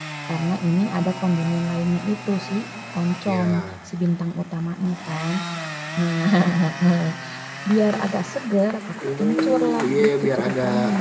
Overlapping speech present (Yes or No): Yes